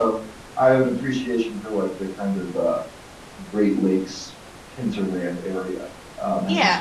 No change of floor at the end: Yes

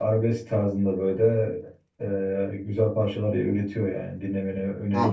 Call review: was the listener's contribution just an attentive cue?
No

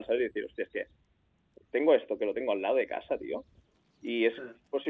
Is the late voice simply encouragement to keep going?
Yes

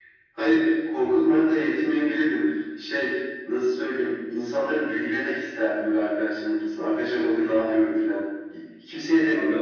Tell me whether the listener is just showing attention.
Yes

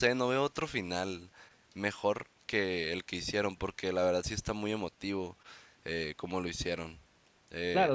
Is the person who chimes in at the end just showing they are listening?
No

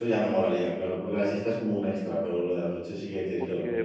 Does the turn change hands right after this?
Yes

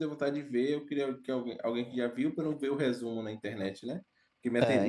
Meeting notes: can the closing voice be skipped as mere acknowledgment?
Yes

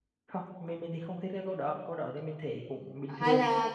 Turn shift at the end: Yes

